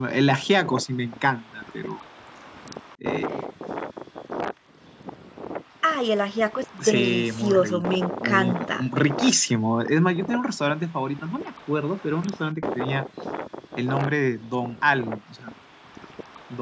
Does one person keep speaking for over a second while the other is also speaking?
Yes, from 6.8 s

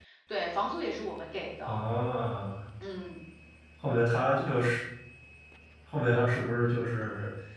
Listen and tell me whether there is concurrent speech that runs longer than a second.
No

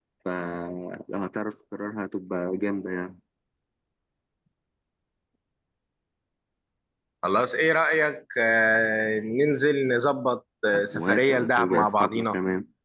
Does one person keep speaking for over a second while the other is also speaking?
Yes, from 10.7 s

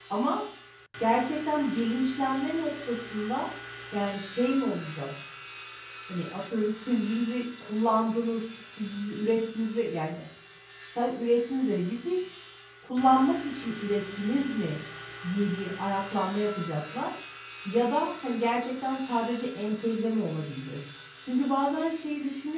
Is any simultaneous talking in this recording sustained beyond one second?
No

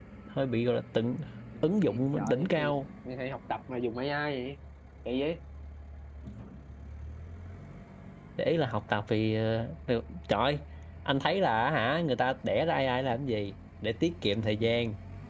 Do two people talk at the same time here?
Yes, from 1.6 s

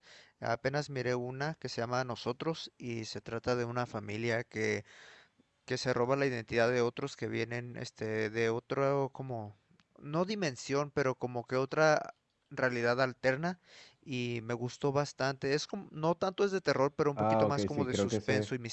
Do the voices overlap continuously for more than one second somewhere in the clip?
Yes, from 17.2 s

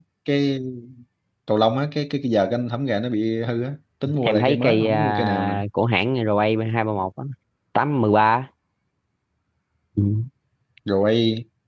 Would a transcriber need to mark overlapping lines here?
Yes, from 4.0 s

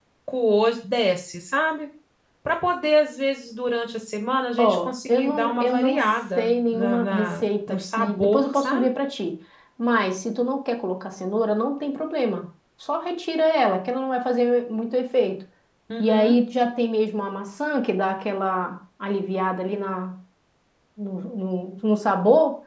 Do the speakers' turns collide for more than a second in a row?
Yes, from 4.6 s

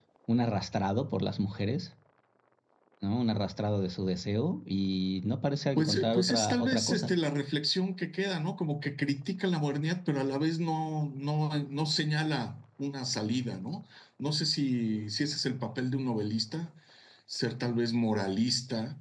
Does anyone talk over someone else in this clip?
Yes, from 5.8 s

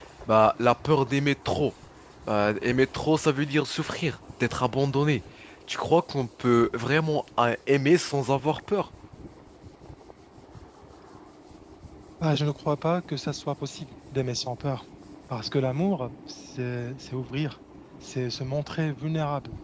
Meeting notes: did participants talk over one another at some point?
No

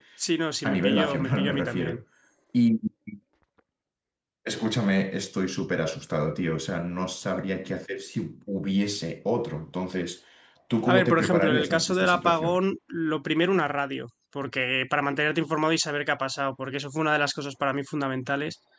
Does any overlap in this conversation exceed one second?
Yes, from 0.6 s

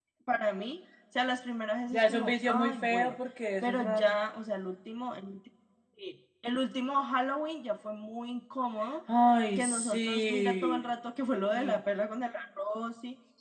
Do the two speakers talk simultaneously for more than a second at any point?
Yes, from 1.9 s

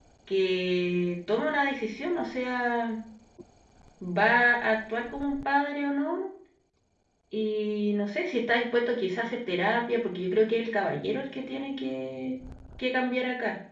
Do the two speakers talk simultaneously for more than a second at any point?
No

